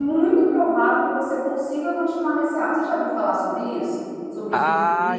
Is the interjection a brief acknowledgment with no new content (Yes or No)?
No